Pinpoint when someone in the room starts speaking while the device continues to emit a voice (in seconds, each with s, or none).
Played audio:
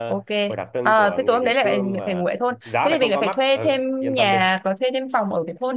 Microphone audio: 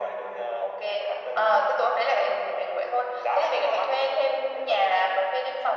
none